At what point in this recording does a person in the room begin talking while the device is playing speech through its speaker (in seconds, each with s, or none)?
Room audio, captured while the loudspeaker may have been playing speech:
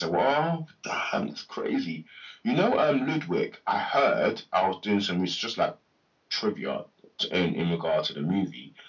none